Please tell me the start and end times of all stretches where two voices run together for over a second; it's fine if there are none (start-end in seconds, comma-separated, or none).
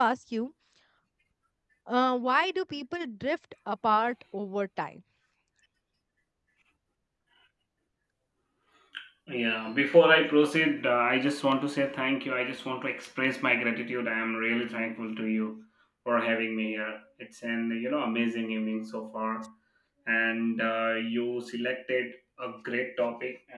none